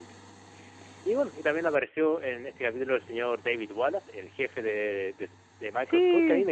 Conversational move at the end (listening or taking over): listening